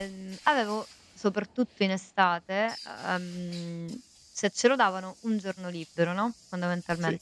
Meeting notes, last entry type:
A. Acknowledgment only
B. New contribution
A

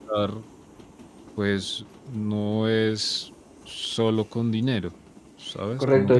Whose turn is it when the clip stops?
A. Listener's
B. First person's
A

